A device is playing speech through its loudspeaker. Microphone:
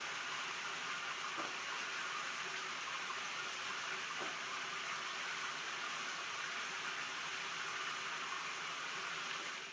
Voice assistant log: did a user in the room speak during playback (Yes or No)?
No